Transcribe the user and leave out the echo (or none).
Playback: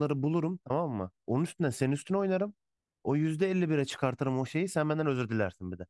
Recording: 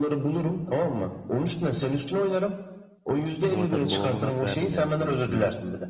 Ama tabii babama hak verdim yani sonrasında.